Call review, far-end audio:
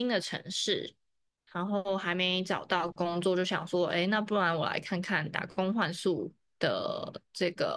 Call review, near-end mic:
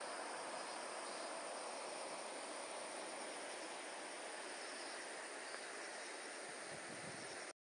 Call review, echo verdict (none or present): none